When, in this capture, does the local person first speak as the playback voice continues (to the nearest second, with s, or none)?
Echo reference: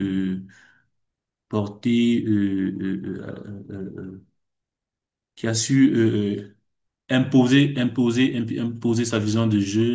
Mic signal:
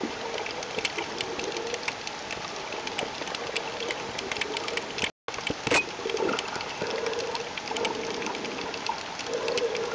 none